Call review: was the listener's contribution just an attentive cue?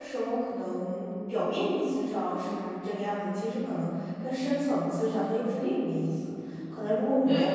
Yes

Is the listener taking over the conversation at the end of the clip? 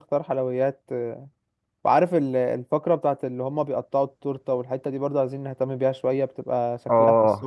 Yes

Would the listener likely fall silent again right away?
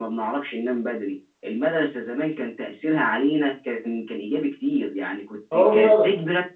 Yes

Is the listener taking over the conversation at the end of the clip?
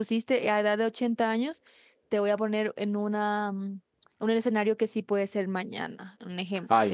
Yes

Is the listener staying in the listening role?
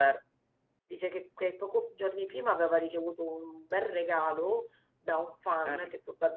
Yes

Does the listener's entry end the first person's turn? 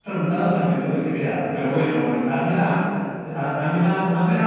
No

